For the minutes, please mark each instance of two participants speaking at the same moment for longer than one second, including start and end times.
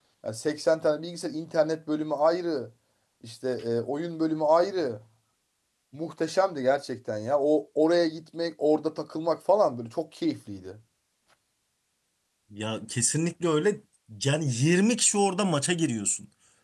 none

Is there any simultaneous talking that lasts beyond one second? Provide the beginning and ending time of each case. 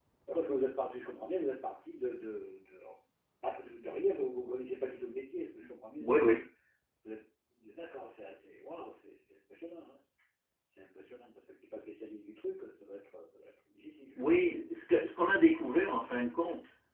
none

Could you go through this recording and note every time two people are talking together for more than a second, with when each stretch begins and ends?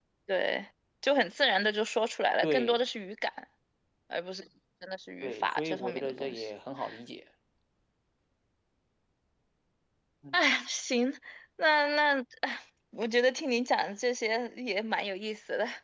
5.2-6.5

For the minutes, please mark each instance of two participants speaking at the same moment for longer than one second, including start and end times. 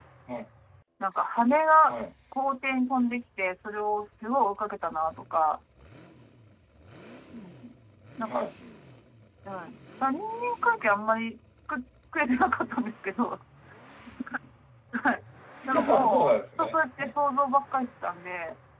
15.9-17.1

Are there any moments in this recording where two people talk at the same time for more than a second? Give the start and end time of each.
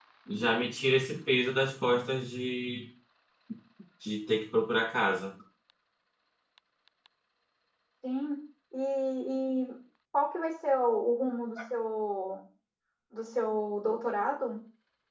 none

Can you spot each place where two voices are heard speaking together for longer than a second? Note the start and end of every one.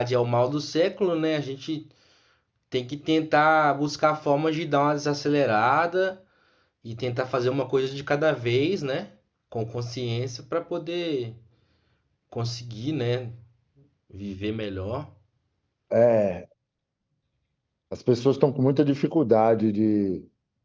none

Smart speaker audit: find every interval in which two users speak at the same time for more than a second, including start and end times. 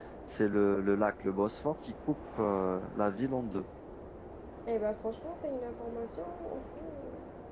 none

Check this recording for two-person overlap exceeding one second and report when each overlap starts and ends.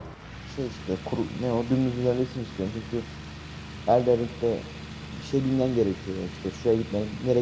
none

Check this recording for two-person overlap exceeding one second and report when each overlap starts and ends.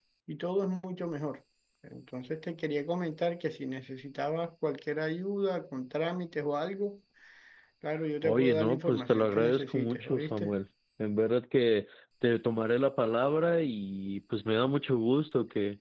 8.2-10.6

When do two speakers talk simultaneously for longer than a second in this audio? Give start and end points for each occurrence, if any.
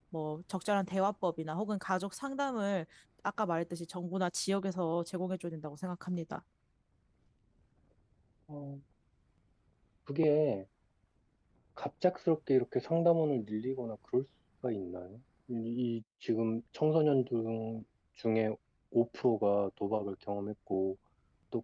none

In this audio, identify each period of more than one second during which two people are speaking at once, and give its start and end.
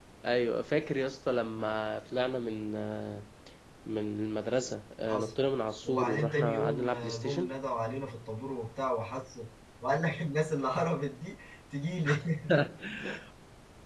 5.8-7.5

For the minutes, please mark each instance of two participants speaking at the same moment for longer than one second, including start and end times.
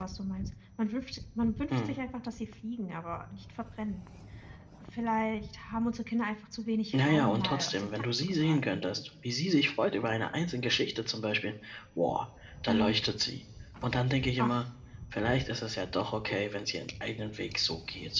6.9-8.8

